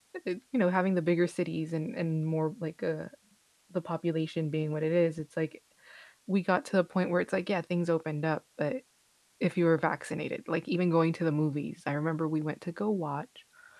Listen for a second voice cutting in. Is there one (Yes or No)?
No